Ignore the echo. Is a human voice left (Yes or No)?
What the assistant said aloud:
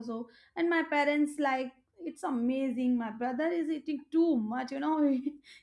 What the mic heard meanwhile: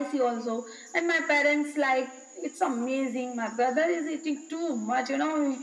No